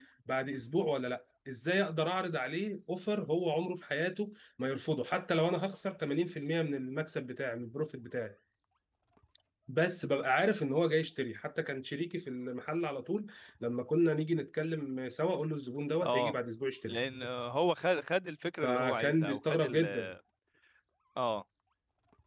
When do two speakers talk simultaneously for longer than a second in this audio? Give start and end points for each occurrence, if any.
18.6-19.9

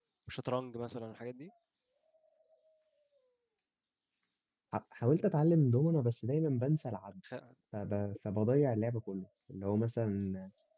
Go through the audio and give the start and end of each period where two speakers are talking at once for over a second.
none

